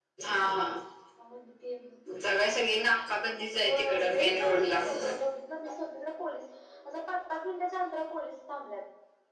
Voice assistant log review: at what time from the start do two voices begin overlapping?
3.6 s

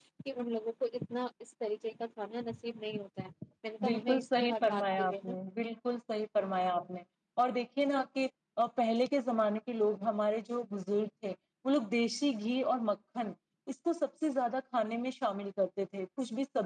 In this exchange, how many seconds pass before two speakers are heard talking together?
3.8 s

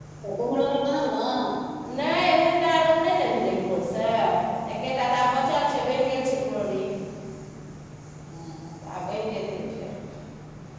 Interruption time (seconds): none

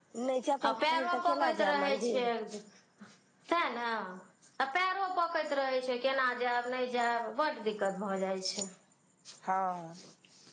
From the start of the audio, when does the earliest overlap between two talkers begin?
0.6 s

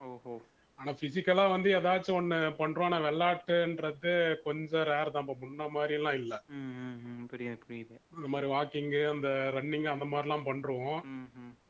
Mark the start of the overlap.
none

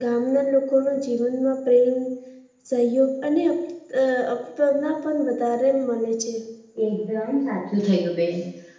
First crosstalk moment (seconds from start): none

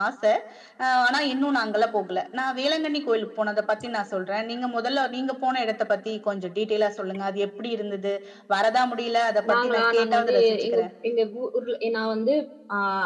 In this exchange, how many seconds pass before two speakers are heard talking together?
9.4 s

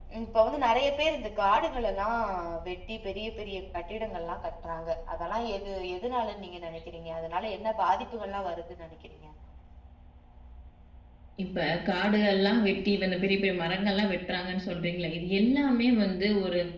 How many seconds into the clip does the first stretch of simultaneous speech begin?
none

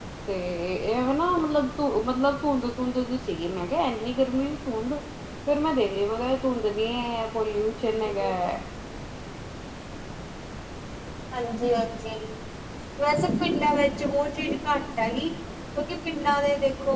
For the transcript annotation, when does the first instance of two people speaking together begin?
none

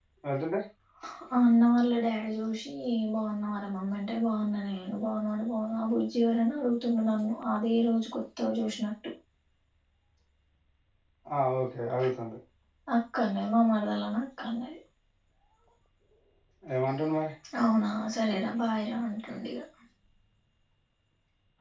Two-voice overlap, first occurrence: none

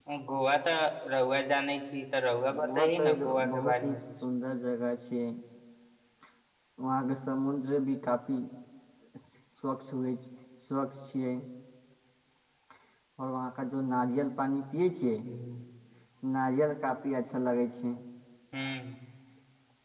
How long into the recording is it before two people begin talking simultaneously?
2.5 s

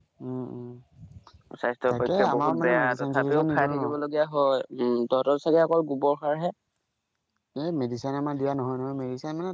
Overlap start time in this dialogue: 1.9 s

